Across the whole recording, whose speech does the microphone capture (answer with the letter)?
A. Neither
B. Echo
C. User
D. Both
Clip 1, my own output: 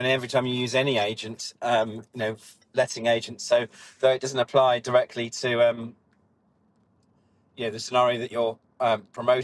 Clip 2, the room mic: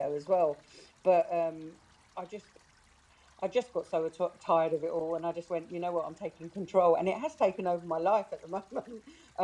C